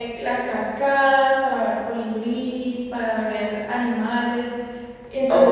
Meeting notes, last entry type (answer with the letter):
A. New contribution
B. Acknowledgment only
B